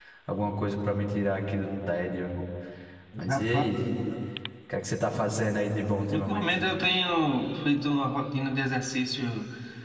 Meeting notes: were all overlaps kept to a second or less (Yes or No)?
Yes